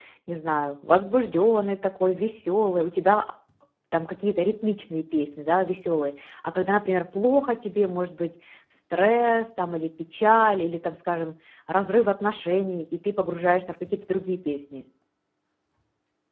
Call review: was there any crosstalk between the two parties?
No

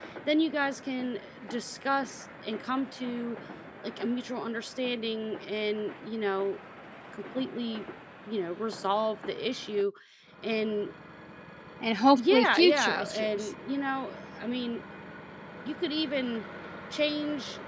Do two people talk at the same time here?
Yes, from 12.2 s

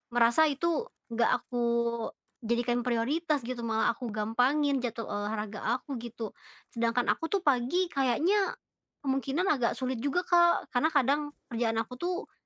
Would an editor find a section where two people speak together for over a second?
No

